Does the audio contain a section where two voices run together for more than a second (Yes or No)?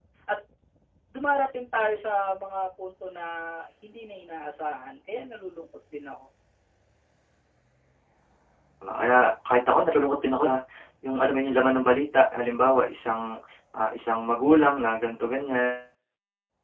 No